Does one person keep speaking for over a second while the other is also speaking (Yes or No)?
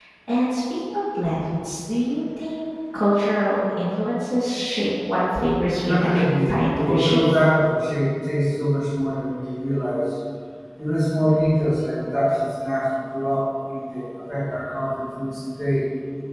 Yes